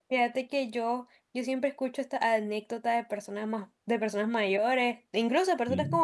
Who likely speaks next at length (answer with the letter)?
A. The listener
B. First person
B